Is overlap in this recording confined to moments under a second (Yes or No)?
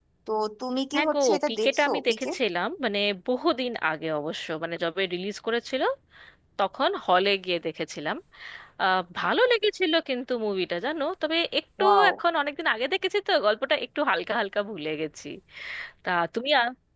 No